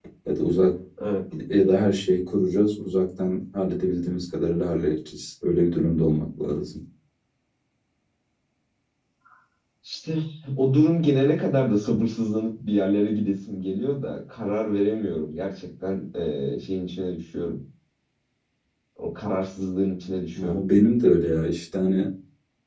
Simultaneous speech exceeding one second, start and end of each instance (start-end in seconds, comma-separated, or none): none